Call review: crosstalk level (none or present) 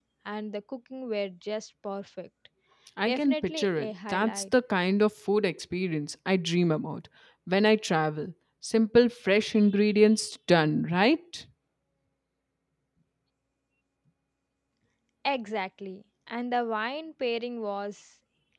present